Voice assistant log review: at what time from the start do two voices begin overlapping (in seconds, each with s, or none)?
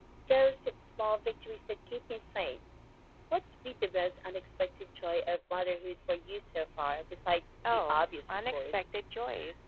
7.6 s